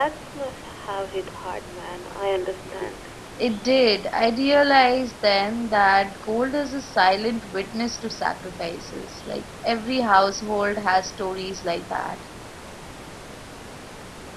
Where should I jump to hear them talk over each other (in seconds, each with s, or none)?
none